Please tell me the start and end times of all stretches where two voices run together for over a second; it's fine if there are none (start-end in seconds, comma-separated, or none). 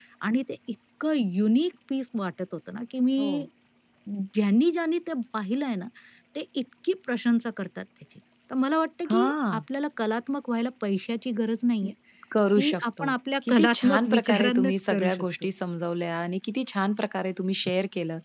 13.5-15.2